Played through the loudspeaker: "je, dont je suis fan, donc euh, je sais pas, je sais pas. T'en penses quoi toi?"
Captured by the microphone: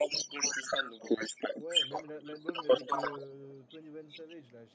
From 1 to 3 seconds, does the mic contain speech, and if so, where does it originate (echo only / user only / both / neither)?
both